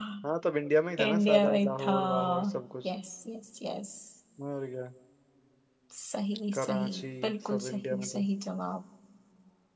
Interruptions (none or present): present